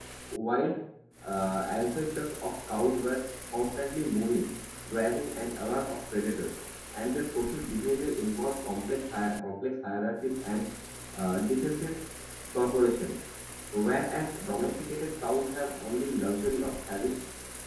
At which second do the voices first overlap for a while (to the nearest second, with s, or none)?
none